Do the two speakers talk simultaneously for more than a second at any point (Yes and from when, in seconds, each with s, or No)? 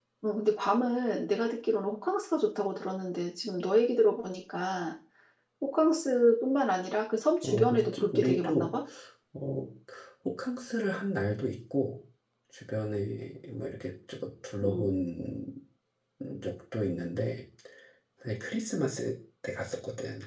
Yes, from 7.4 s